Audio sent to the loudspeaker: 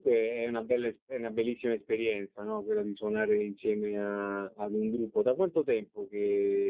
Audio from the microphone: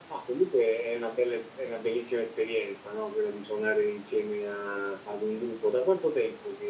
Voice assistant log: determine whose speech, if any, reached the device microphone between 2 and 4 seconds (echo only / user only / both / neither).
echo only